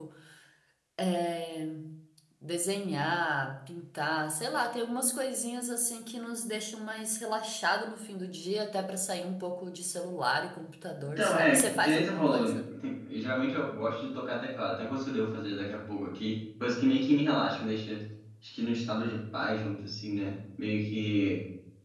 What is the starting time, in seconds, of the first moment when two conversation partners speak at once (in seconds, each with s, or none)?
11.2 s